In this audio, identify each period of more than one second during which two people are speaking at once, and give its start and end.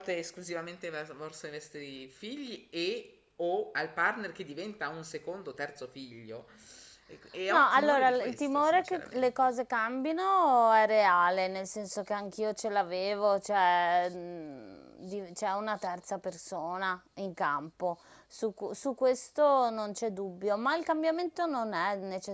7.5-9.3

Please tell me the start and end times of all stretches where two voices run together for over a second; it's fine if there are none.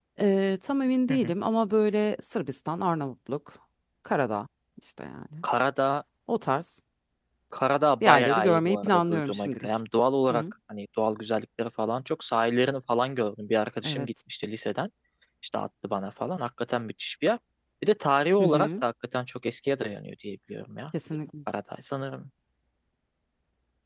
8.0-9.7

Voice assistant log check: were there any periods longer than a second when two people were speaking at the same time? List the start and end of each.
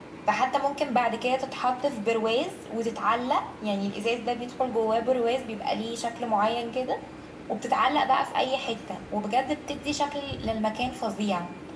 none

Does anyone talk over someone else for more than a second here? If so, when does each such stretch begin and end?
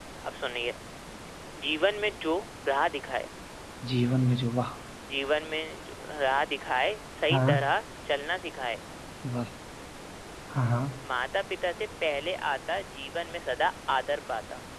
none

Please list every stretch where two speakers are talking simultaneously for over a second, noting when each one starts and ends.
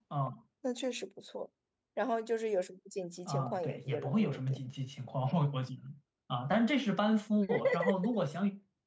3.3-4.6

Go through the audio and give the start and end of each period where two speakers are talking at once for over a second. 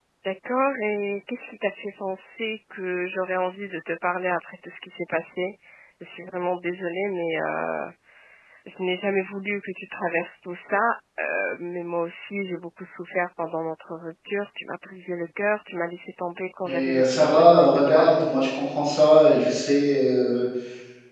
16.6-18.1

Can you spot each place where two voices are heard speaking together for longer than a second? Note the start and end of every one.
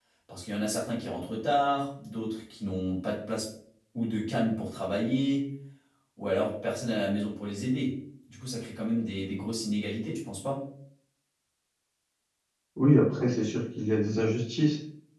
none

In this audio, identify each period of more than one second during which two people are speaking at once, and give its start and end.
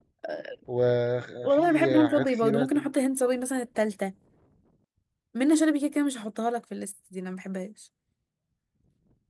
1.4-2.9

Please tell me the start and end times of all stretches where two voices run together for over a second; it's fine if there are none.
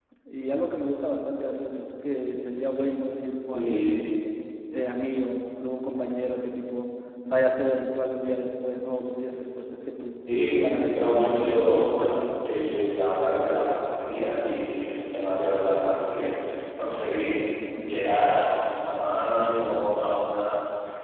10.6-12.2

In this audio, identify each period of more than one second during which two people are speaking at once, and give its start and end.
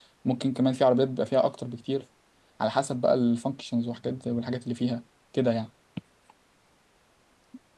none

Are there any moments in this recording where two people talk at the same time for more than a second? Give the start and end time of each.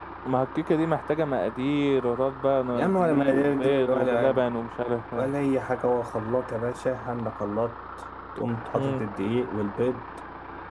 2.7-4.4

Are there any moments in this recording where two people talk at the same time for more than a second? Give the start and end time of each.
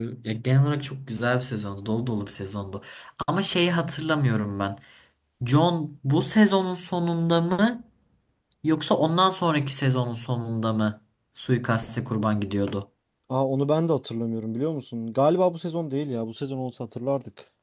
none

